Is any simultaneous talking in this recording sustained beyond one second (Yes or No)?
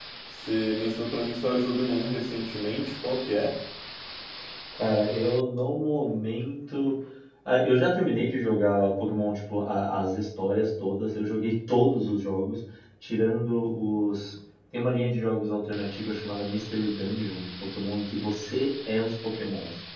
No